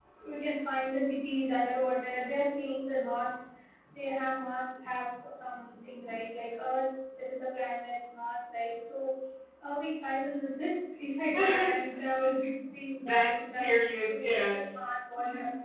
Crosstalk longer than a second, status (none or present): present